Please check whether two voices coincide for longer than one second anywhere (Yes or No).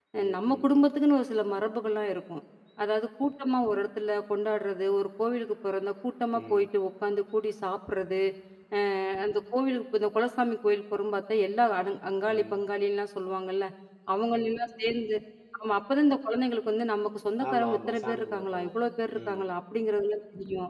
Yes